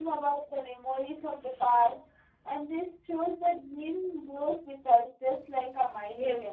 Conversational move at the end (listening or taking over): taking over